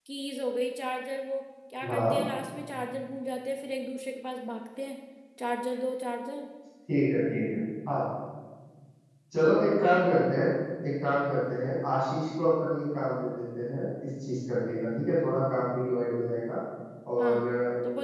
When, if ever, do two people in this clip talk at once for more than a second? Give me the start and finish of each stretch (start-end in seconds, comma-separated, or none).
none